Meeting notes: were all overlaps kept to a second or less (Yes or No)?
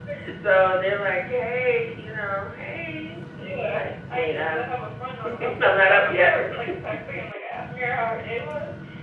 No